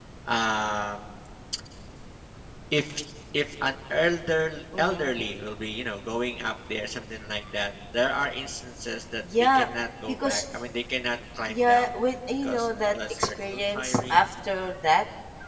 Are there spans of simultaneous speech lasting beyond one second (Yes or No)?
Yes